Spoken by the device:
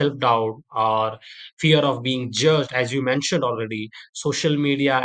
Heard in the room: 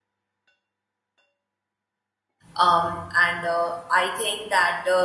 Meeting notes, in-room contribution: present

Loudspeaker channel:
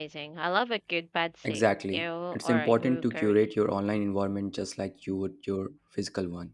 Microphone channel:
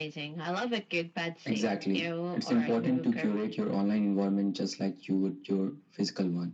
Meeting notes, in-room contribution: none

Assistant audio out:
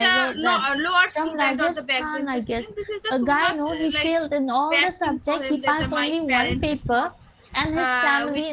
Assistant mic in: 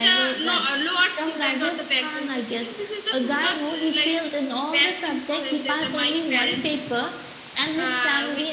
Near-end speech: none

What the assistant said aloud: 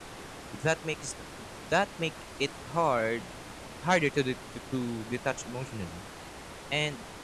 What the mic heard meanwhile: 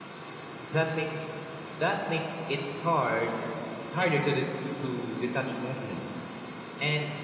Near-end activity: none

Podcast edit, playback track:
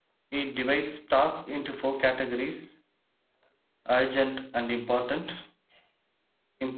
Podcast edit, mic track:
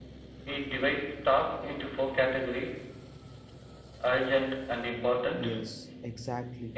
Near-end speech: present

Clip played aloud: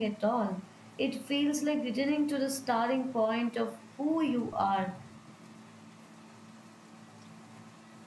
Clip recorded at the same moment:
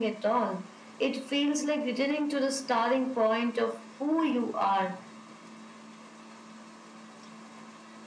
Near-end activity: none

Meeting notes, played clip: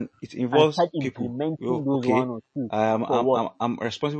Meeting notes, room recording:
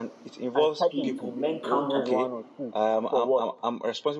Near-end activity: present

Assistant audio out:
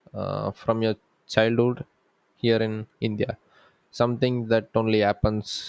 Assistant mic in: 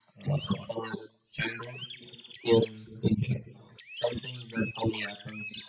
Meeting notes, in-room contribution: none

